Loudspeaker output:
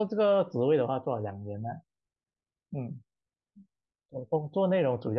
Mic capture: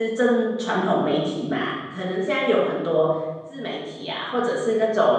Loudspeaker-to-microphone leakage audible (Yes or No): No